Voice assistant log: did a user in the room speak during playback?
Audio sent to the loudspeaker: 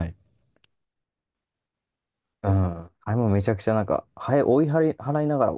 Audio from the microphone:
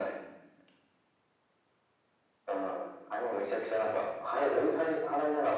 No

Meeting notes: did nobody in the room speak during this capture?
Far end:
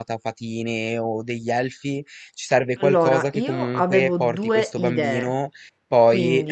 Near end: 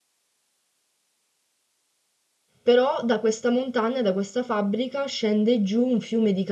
No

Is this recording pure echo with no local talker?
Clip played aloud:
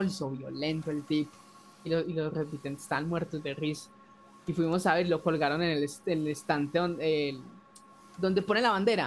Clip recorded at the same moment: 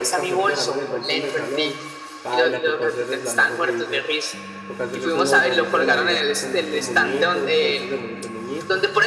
No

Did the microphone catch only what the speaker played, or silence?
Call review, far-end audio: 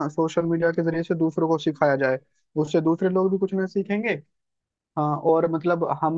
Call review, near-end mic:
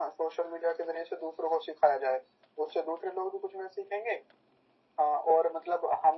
Yes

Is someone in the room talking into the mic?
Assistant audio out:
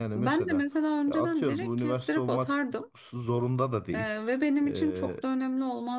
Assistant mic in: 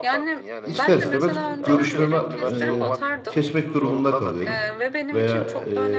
Yes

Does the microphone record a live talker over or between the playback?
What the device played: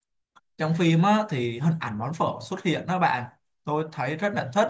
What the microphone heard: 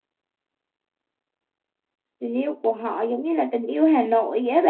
Yes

